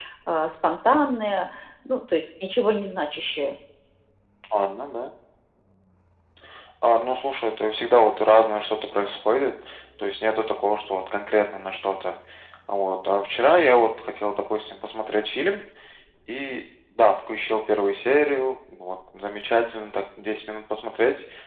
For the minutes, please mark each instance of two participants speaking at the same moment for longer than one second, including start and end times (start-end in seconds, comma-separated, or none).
none